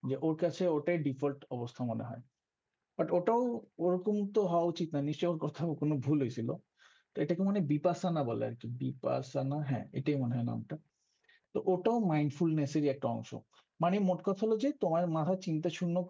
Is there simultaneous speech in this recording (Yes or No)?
No